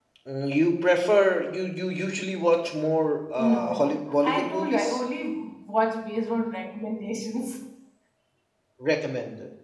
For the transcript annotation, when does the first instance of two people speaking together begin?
3.4 s

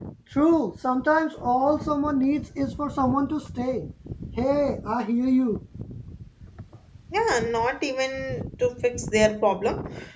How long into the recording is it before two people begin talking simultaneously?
none

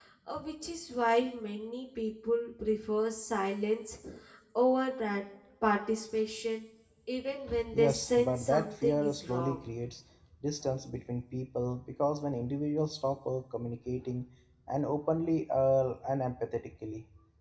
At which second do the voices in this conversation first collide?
7.7 s

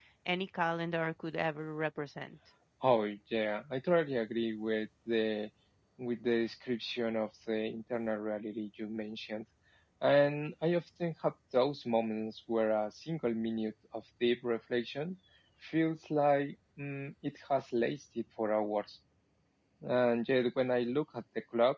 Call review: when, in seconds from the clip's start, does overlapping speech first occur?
none

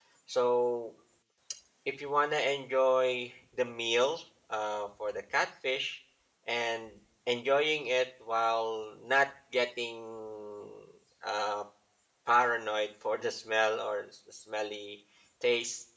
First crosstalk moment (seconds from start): none

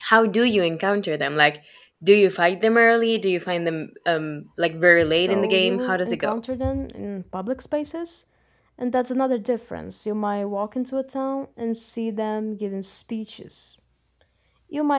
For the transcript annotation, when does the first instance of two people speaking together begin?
5.1 s

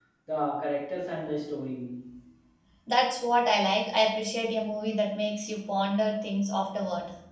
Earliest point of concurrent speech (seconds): none

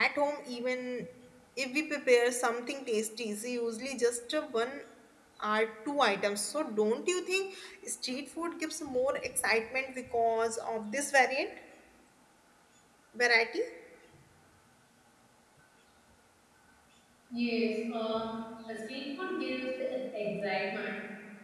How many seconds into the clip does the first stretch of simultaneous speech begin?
none

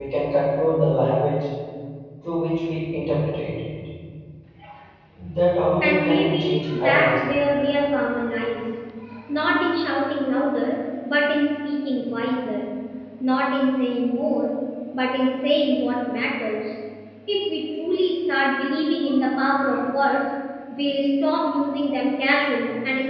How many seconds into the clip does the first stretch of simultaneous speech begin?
5.8 s

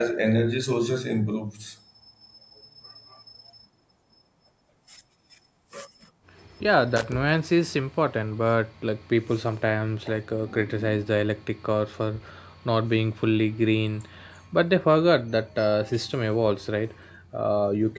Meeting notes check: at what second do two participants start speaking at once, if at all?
none

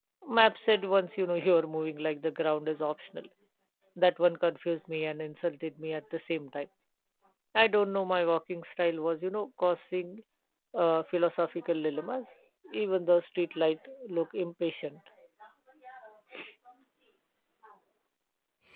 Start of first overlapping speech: none

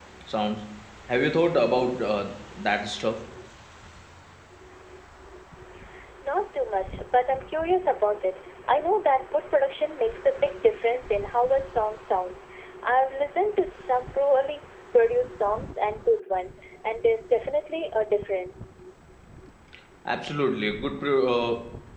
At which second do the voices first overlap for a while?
none

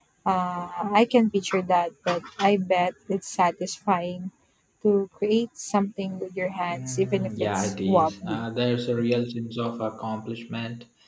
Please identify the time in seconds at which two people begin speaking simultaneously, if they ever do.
6.7 s

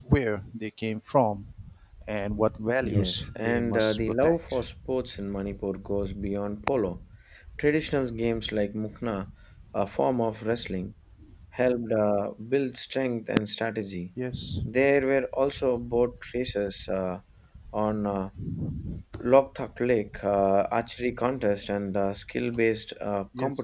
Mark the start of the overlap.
2.8 s

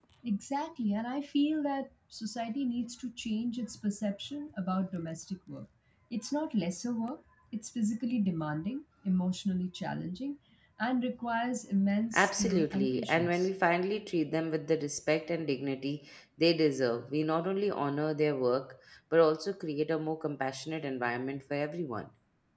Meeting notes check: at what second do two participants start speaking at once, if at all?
12.1 s

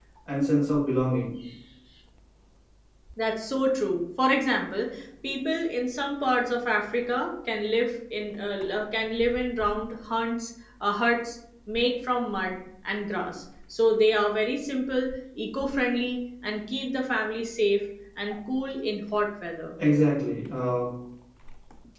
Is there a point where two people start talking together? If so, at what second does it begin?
none

